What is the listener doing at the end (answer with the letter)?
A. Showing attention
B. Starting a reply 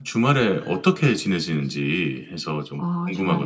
B